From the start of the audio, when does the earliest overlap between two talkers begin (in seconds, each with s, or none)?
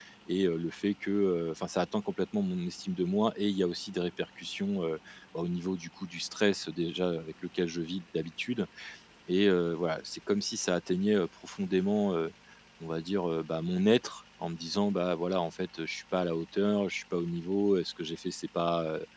none